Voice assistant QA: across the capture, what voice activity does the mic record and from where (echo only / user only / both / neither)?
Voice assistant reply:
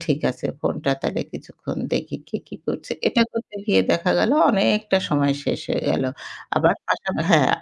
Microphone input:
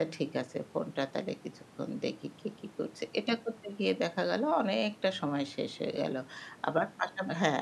echo only